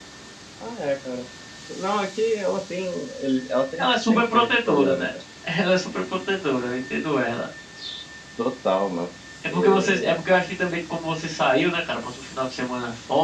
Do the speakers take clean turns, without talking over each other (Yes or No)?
No